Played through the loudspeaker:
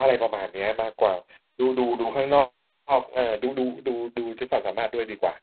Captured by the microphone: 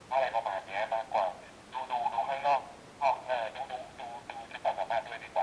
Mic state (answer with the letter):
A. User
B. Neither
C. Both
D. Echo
D